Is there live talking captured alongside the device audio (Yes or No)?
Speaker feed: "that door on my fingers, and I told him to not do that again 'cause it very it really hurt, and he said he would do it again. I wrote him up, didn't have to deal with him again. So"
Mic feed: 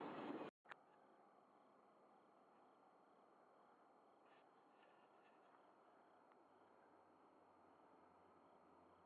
No